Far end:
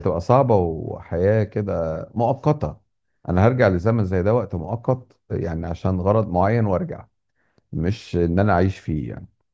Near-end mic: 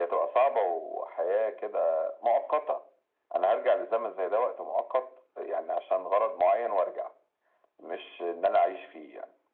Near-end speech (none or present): none